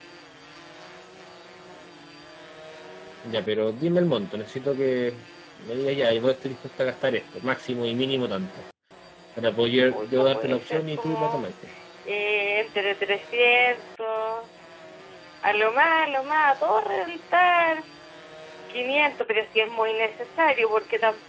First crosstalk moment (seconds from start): 9.9 s

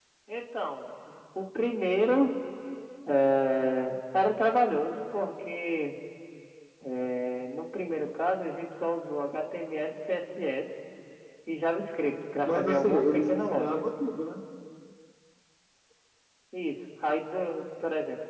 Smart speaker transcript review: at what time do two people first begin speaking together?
12.4 s

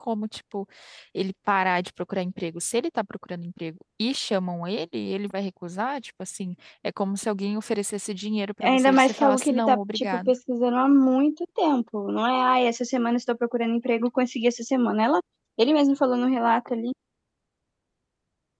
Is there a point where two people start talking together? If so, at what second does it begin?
8.6 s

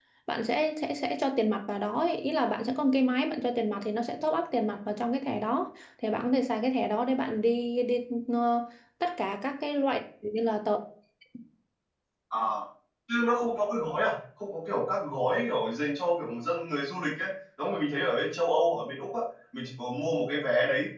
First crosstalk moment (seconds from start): none

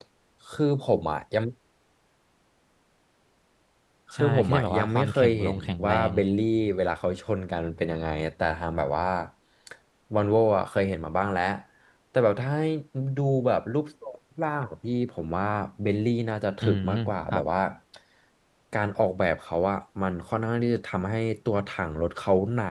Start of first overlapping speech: 4.1 s

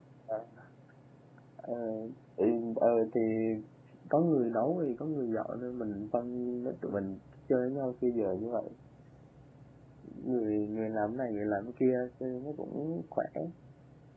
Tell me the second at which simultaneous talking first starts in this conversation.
none

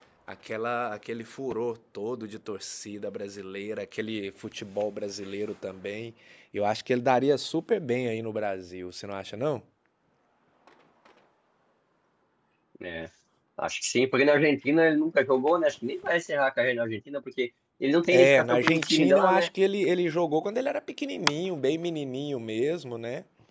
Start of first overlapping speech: 18.0 s

